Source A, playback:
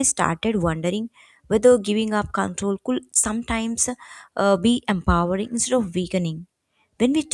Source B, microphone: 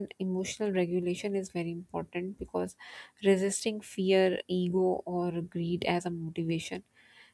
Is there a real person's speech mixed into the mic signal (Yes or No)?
Yes